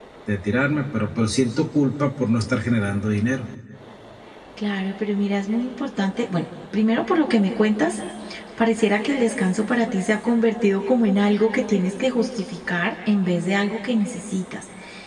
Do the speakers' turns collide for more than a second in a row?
No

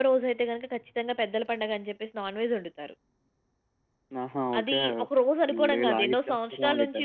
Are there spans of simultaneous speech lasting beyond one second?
Yes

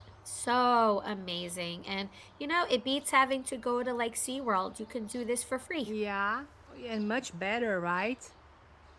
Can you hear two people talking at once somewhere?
No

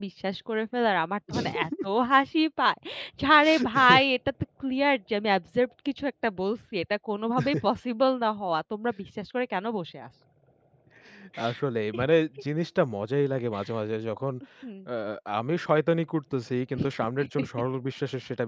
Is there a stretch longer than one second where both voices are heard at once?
No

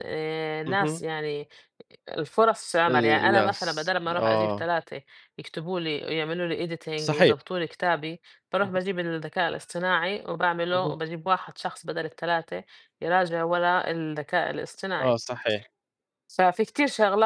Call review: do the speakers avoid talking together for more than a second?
No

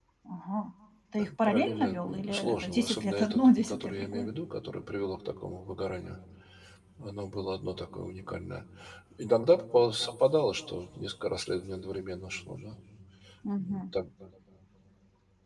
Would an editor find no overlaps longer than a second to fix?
No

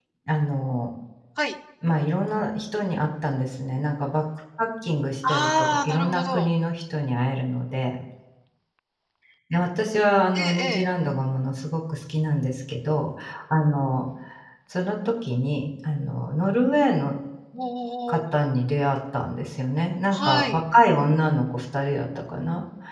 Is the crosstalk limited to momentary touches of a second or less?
No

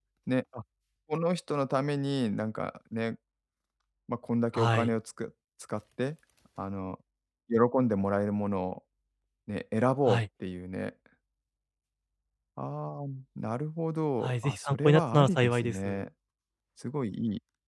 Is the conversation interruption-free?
No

